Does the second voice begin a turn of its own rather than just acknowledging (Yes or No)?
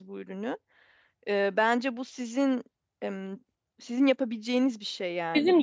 No